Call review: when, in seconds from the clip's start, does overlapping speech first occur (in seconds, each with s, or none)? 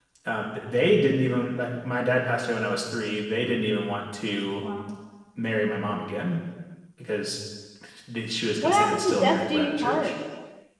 8.6 s